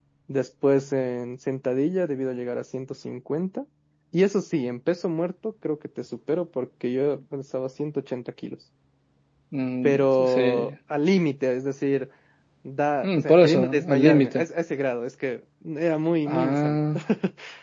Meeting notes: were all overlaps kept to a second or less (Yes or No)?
No